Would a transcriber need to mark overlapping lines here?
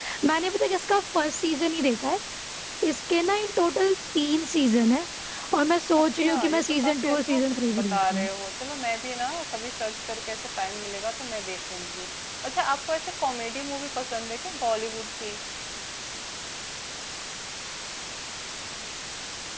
Yes, from 6.3 s

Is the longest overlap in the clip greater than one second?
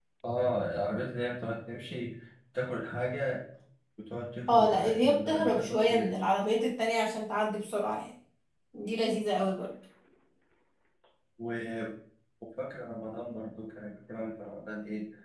Yes, from 4.5 s

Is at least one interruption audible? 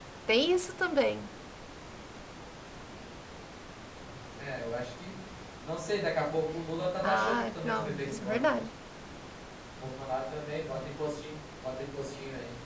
Yes, from 7.0 s

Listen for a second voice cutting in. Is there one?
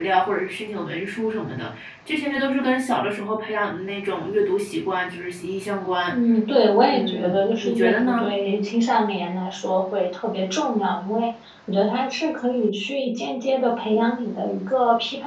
Yes, from 6.9 s

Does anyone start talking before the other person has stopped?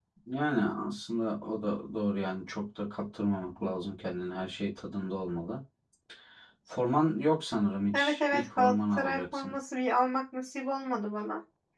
Yes, from 7.9 s

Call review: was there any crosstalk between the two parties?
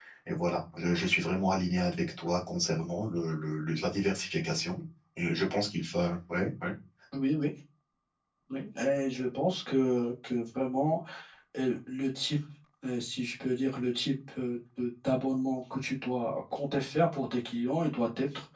No

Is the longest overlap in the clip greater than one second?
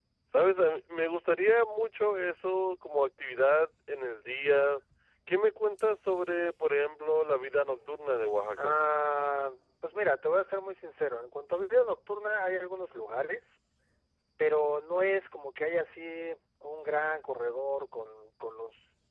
No

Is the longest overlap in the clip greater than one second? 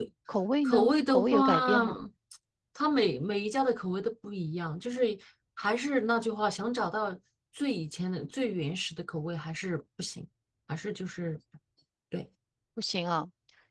Yes, from 0.6 s

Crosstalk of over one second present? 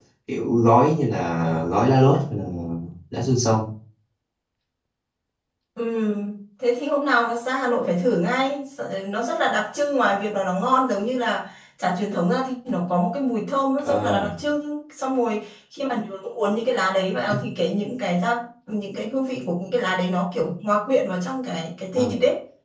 No

